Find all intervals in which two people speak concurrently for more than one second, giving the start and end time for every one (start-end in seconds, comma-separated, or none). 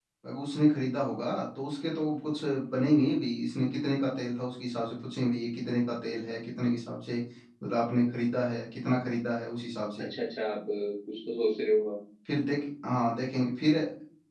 none